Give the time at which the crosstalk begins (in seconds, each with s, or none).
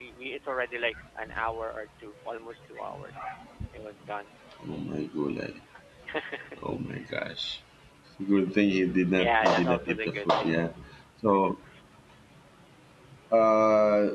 9.1 s